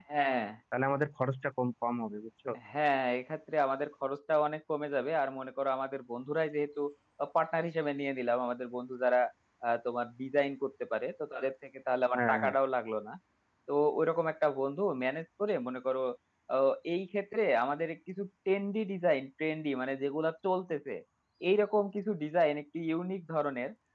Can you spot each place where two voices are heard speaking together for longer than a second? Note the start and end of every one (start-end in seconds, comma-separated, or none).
none